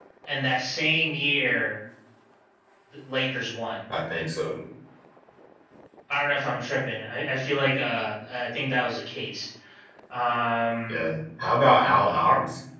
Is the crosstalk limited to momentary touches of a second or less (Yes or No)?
Yes